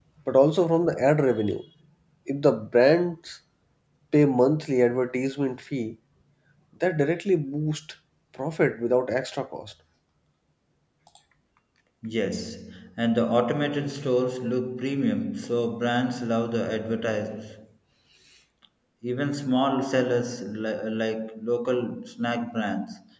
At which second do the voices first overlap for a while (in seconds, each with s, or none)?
none